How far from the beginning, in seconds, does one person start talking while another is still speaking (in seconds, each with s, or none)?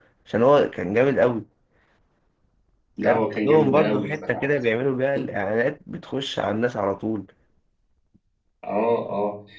3.0 s